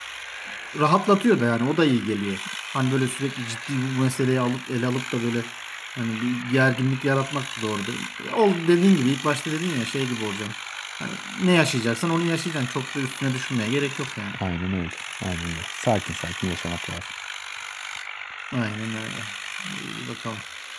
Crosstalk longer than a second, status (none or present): none